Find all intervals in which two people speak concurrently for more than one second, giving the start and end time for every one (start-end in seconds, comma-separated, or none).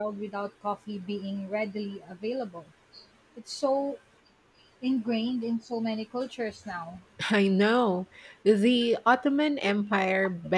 none